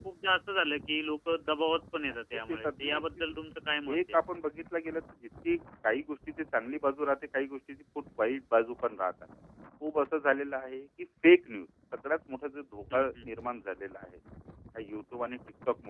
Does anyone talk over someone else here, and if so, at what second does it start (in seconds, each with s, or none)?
2.1 s